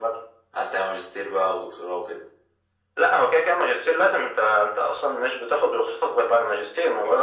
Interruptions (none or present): none